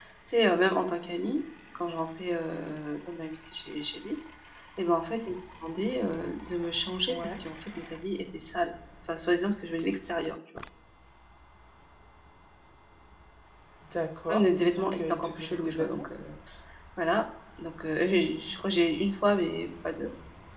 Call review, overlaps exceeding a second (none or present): present